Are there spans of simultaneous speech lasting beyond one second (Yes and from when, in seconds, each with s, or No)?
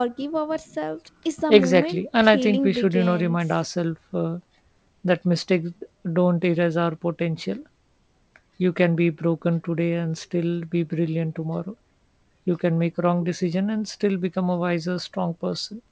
Yes, from 1.5 s